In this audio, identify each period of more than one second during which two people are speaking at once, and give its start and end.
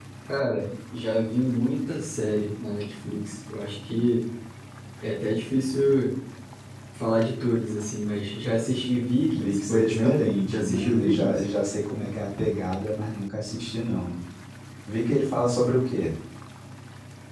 9.3-11.4

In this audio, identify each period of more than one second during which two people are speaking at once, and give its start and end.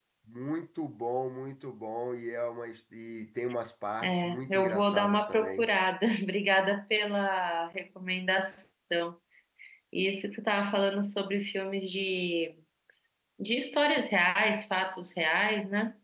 4.0-5.7

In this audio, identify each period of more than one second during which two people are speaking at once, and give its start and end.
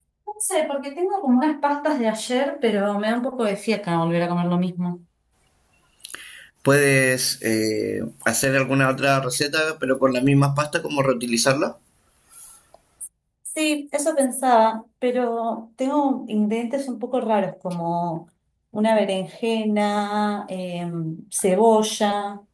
none

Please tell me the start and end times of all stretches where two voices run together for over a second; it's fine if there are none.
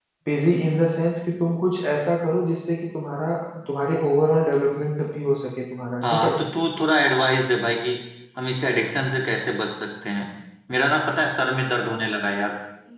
none

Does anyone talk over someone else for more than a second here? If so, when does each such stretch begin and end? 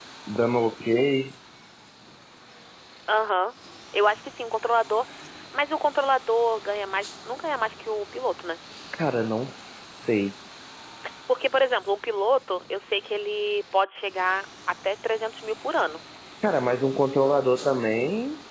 none

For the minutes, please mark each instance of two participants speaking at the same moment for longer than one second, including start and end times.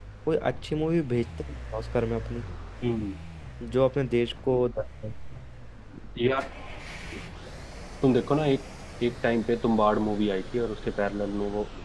none

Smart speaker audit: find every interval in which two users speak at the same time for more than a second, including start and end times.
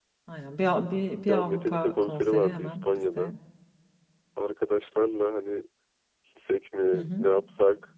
1.3-3.3

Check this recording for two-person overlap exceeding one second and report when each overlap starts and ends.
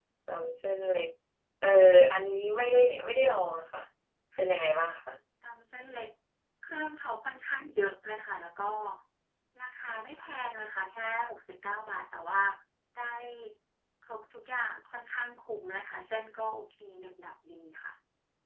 none

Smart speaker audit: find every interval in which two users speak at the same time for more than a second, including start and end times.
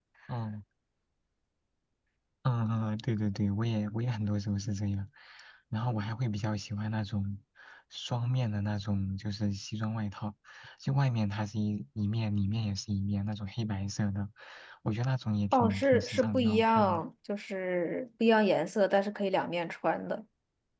15.5-17.0

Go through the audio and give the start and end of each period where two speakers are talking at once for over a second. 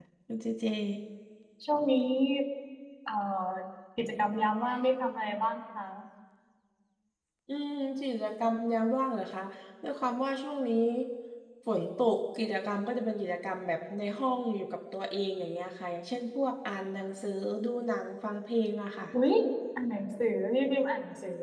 none

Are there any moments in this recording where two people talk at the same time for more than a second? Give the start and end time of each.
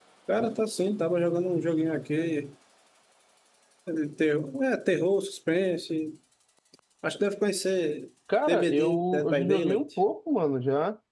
8.5-9.8

